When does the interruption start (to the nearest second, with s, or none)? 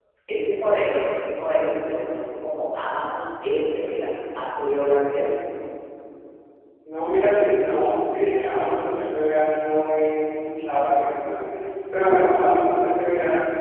none